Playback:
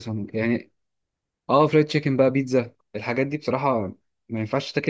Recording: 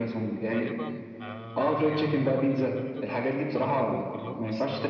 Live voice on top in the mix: No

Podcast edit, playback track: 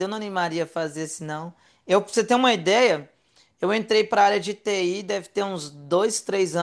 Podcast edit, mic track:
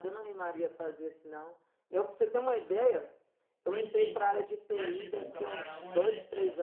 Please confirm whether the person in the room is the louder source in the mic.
No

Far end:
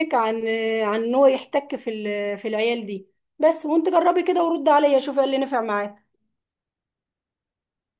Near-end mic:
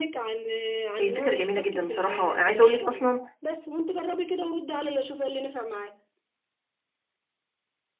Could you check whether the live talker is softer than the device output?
No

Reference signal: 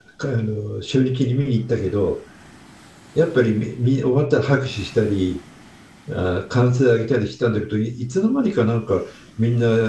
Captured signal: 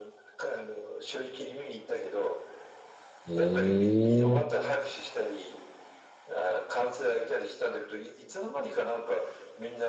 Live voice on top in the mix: Yes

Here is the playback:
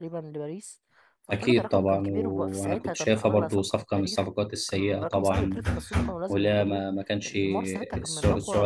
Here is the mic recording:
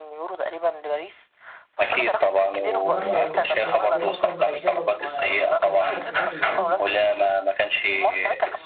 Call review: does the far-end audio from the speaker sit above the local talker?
Yes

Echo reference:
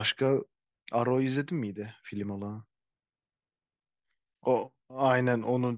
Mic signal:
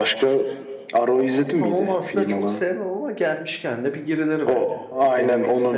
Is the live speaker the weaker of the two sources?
Yes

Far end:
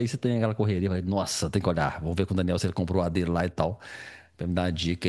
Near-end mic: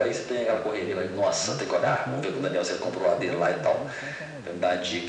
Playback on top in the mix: Yes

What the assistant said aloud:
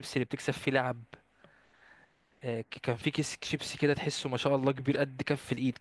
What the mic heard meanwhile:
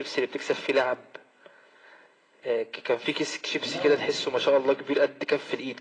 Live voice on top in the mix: No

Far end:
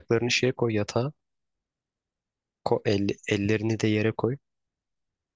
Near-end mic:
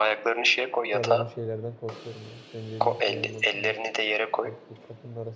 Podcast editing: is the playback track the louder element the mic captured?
Yes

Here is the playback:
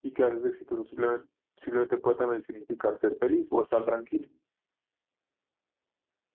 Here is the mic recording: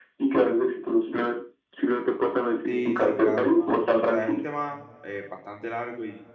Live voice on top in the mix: No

